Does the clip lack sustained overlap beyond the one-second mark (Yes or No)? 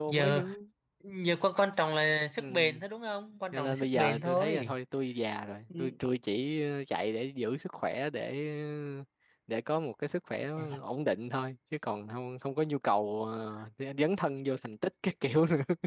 No